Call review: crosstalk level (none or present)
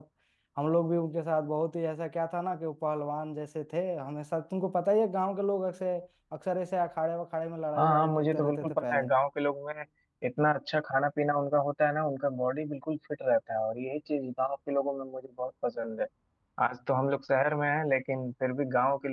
present